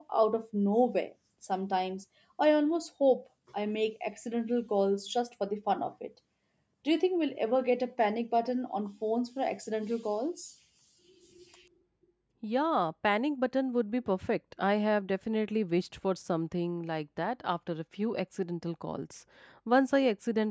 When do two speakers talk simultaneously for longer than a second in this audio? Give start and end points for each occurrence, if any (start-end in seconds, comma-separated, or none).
none